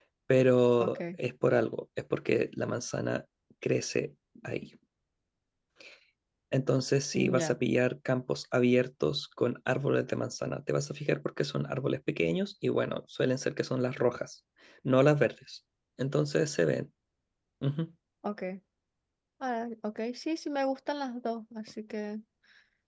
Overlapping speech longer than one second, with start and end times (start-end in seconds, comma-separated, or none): none